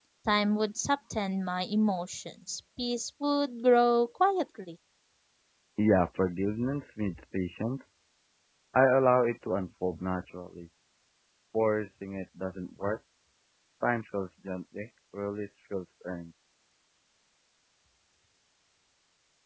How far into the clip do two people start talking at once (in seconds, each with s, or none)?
none